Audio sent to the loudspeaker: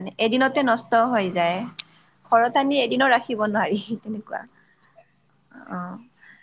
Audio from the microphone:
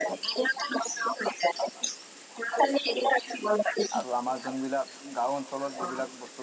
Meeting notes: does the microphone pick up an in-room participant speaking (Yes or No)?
Yes